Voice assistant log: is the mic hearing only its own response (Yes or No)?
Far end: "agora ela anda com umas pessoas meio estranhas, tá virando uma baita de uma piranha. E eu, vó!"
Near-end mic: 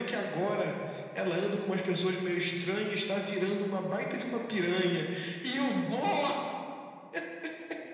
Yes